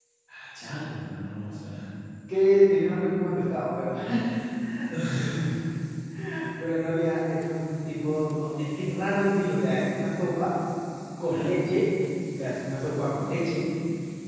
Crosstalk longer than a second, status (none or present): none